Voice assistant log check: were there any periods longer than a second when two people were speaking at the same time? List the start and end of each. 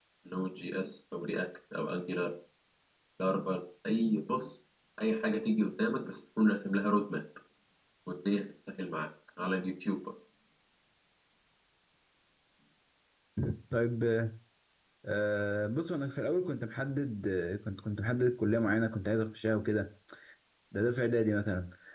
none

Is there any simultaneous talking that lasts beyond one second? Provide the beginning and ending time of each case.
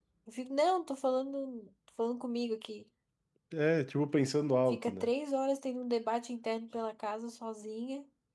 none

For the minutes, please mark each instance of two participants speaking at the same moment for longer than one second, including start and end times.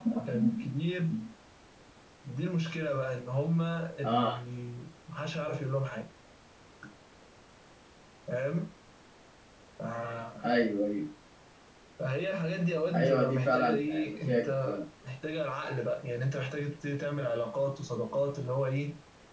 12.9-14.8

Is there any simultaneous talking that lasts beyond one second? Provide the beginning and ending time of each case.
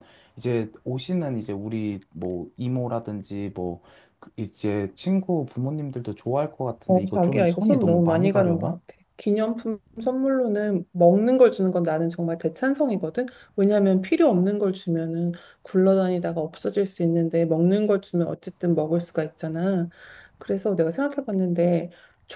6.9-8.8

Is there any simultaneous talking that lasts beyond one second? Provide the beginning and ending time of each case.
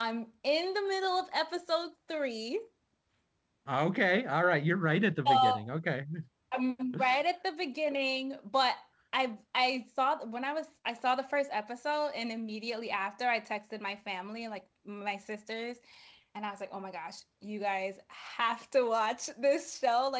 none

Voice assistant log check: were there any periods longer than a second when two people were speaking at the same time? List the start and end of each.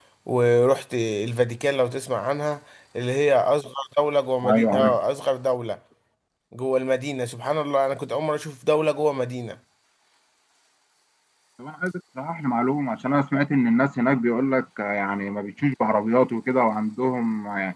none

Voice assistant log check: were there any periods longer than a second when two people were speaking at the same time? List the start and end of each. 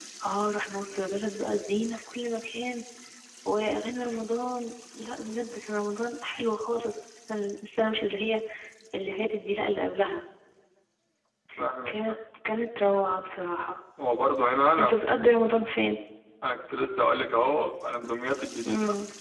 none

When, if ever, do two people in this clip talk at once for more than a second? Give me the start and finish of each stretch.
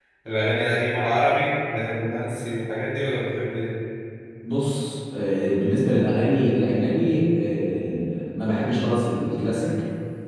none

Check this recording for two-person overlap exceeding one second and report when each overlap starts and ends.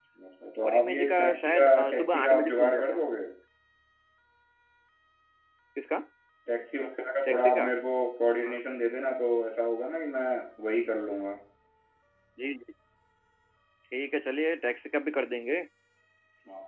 0.6-3.0

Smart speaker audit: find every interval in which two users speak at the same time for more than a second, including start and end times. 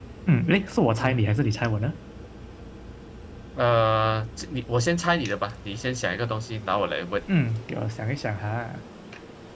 none

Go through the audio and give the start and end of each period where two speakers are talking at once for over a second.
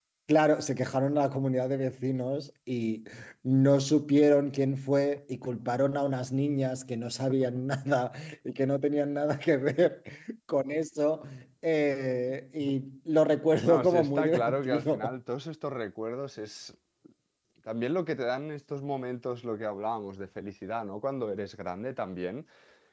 13.6-15.1

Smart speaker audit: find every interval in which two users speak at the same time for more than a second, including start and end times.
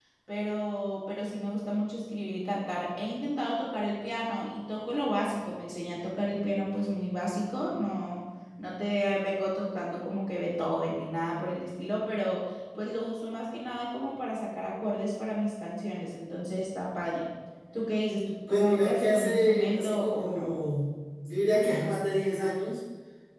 18.5-20.6

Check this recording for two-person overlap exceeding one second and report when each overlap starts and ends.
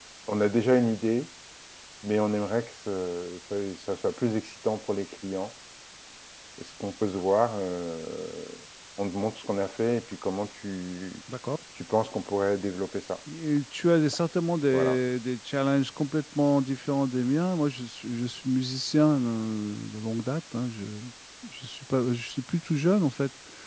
none

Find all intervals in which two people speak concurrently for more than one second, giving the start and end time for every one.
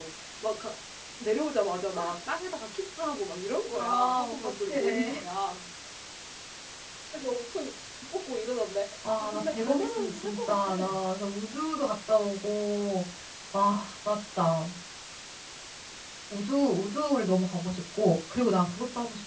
3.7-5.2, 9.2-10.7

